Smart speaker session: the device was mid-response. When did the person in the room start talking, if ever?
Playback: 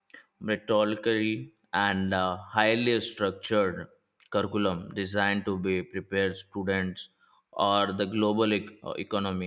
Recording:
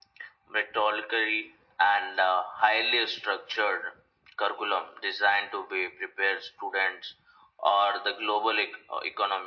none

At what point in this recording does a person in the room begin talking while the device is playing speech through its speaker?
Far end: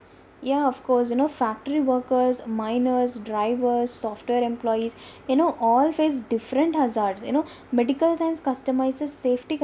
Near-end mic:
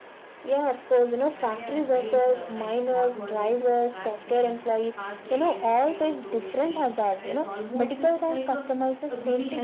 1.2 s

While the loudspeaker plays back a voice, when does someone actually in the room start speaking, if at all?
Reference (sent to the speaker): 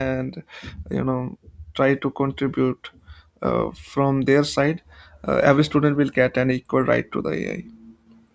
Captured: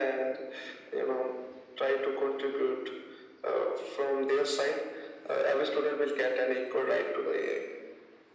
none

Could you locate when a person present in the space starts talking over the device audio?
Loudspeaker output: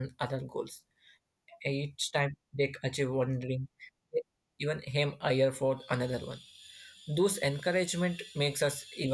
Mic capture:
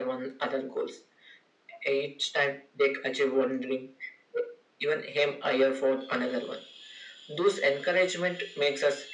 none

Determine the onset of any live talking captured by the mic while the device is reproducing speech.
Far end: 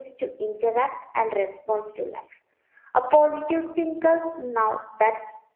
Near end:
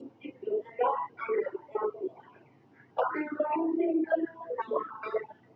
none

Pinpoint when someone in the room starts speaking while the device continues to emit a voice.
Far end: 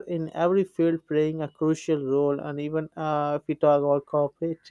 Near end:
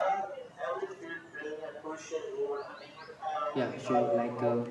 3.5 s

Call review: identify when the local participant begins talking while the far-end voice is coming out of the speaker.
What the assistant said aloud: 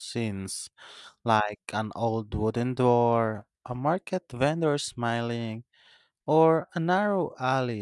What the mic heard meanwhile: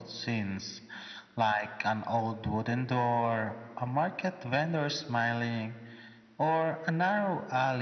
none

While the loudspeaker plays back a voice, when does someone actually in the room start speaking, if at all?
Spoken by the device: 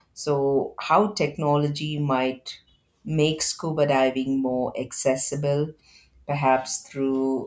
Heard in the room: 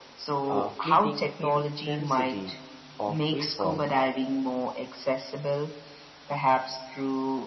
0.5 s

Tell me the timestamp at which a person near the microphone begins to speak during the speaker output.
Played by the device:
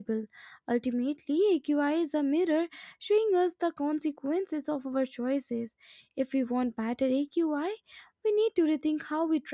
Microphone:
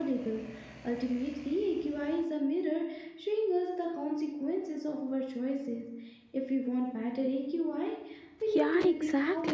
8.5 s

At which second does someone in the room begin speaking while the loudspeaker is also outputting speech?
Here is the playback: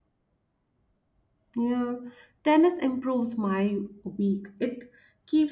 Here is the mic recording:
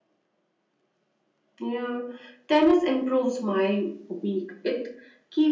none

